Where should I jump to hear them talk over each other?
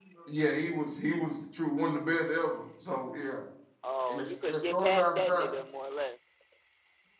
4.1 s

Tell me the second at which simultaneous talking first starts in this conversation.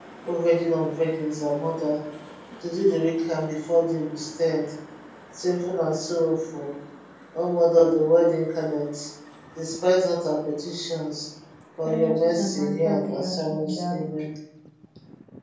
11.8 s

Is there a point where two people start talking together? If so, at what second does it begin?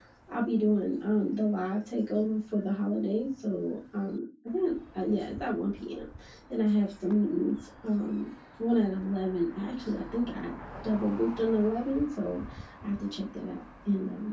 none

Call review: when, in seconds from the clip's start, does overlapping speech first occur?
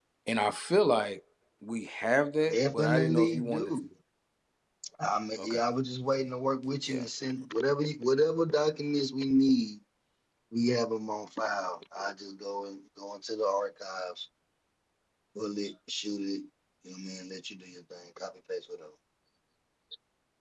2.5 s

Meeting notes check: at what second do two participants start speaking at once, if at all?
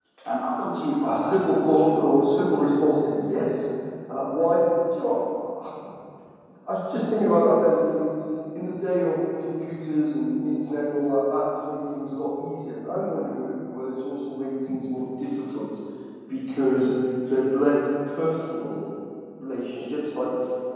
1.0 s

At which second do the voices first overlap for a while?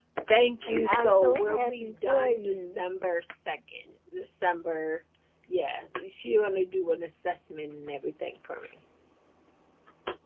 0.8 s

